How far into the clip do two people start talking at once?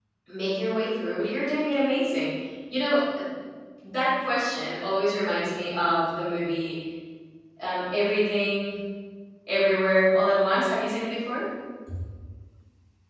none

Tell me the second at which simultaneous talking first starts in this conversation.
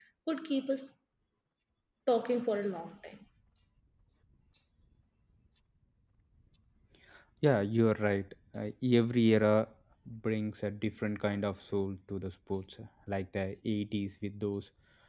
none

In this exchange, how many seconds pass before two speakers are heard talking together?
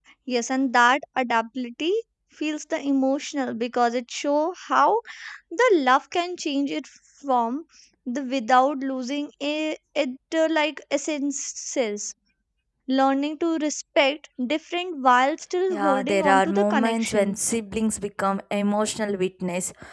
15.7 s

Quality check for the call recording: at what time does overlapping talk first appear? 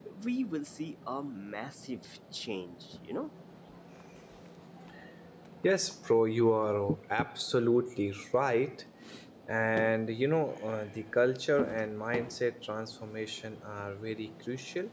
none

